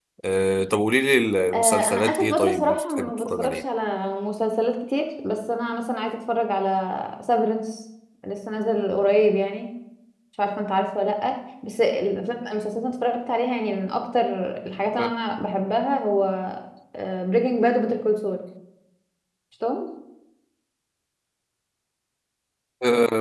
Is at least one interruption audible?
Yes, from 1.5 s

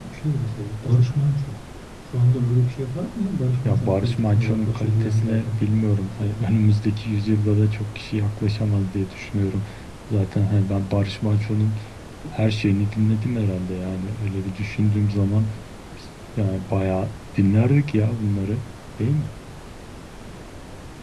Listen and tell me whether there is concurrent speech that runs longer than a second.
Yes, from 3.6 s

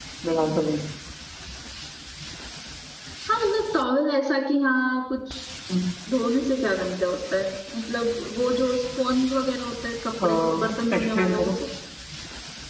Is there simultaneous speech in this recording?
Yes, from 10.2 s

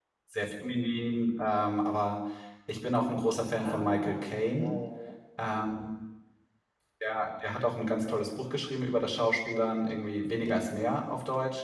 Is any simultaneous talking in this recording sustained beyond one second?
Yes, from 3.5 s

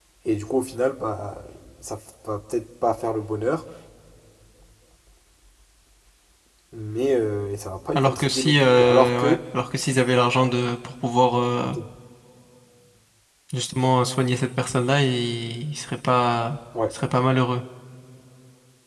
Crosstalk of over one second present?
Yes, from 8.0 s

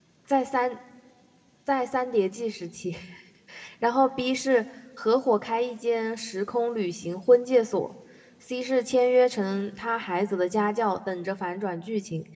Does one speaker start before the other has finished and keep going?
No

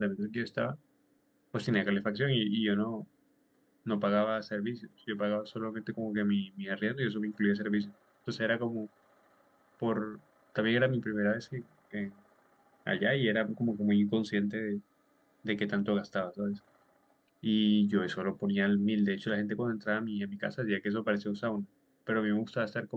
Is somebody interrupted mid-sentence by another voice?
No

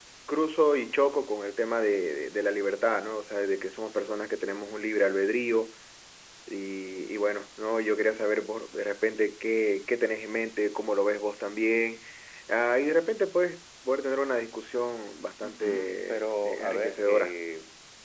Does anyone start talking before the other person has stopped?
Yes, from 15.4 s

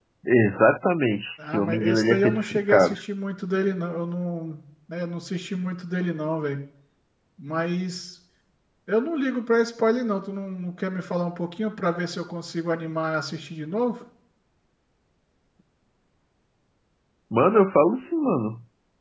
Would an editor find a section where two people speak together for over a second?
Yes, from 1.4 s

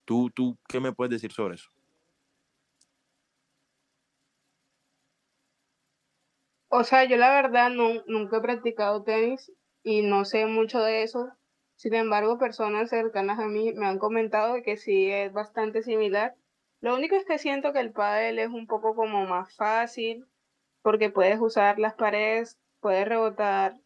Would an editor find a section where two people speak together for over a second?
No

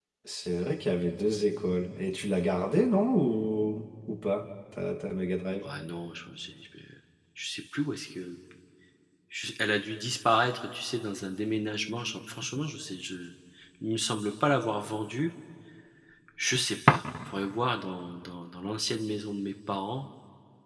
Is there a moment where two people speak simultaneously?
No

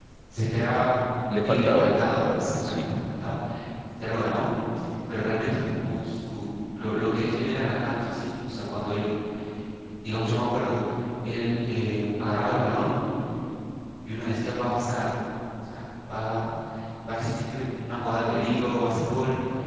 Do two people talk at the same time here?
Yes, from 1.4 s

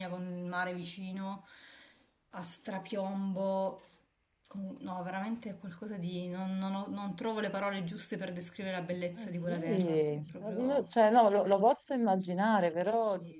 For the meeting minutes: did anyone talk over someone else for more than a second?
Yes, from 9.2 s

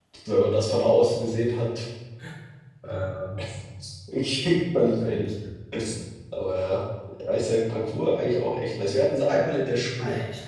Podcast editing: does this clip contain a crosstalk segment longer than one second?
No

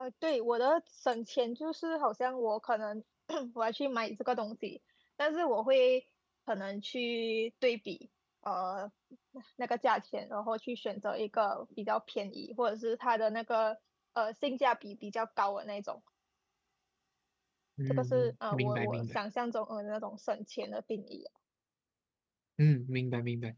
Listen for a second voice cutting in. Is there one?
Yes, from 17.9 s

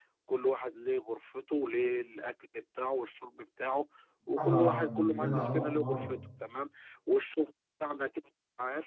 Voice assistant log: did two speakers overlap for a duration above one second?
Yes, from 4.4 s

